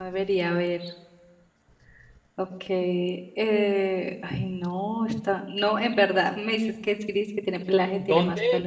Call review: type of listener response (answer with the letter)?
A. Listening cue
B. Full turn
B